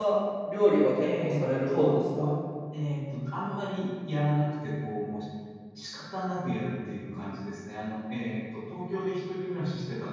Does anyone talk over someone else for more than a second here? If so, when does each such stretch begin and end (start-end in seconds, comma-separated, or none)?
1.0-2.3